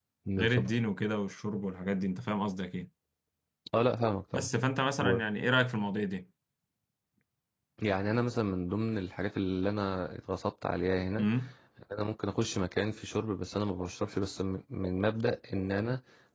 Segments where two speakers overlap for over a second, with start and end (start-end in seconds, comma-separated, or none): none